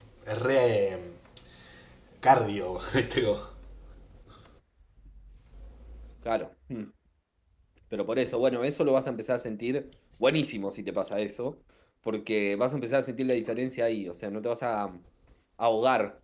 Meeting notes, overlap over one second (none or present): none